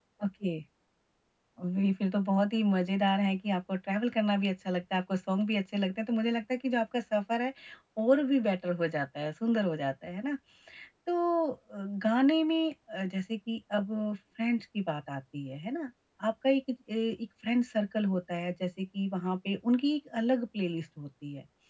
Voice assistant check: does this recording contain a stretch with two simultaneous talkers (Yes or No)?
No